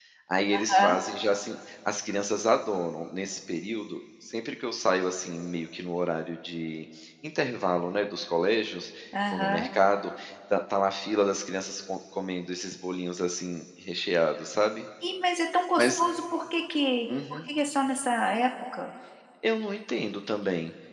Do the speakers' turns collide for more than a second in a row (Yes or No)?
No